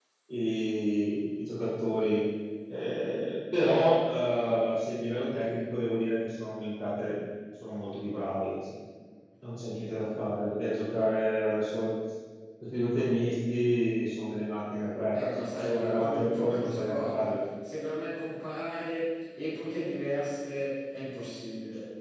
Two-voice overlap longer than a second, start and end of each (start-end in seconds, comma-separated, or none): 15.2-17.4